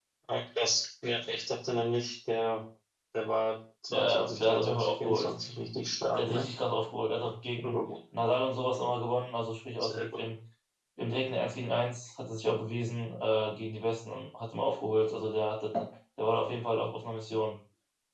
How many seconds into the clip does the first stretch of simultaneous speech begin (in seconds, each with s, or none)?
3.9 s